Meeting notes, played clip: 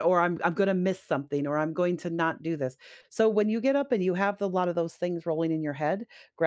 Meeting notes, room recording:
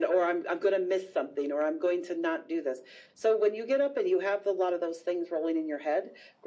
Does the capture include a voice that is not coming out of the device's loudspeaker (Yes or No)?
No